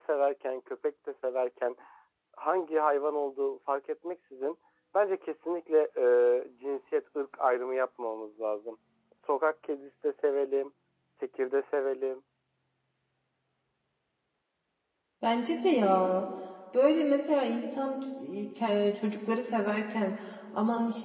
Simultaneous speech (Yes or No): No